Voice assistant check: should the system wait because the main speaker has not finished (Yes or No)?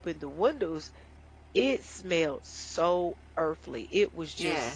Yes